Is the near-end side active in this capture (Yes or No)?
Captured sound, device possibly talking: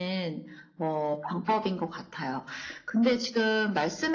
No